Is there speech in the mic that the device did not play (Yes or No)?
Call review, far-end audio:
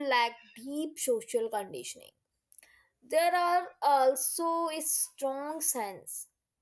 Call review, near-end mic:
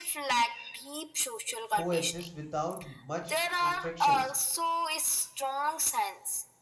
Yes